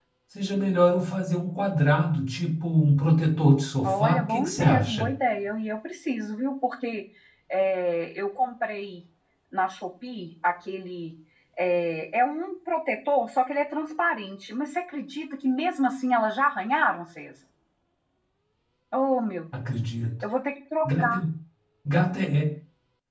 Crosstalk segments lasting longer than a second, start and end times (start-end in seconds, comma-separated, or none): 3.9-5.1